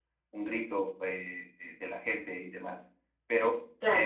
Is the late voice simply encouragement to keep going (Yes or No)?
Yes